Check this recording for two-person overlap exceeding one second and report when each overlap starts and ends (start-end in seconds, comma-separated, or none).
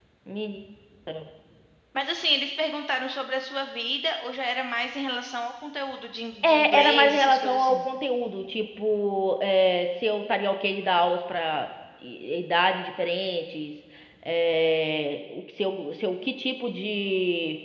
6.4-7.8